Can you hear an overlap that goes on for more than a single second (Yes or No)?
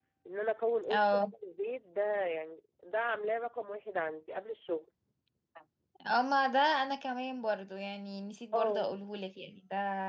No